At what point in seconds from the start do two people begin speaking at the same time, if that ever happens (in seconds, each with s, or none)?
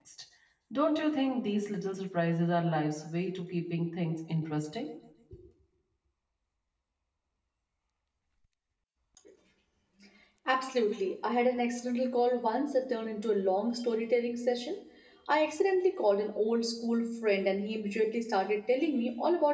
none